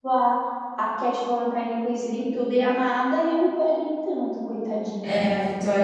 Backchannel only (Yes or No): No